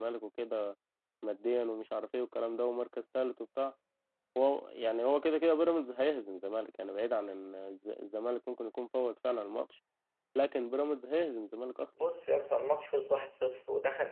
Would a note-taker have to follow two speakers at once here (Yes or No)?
No